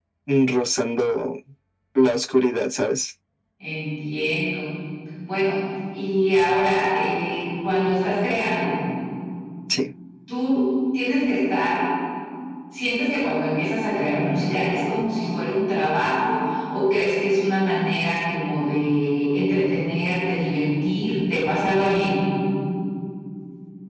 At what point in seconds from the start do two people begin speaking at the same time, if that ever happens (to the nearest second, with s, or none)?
none